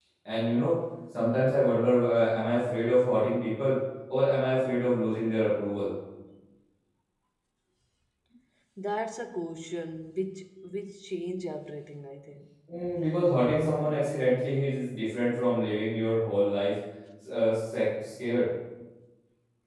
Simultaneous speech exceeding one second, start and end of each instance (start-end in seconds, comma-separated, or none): none